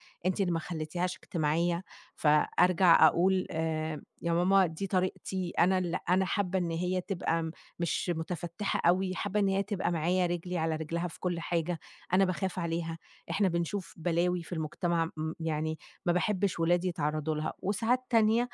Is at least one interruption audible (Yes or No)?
No